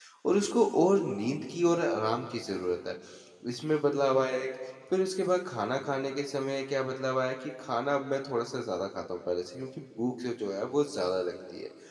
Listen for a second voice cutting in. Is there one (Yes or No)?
No